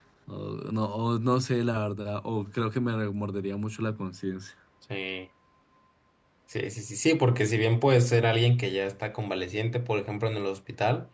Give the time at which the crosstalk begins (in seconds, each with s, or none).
none